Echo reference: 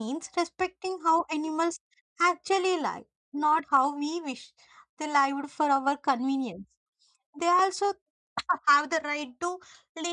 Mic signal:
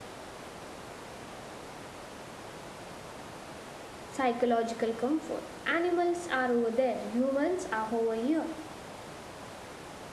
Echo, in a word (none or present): none